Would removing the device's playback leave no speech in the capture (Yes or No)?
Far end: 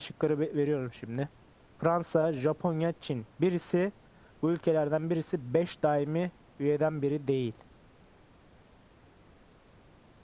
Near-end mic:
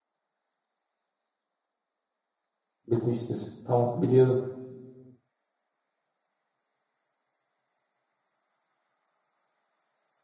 No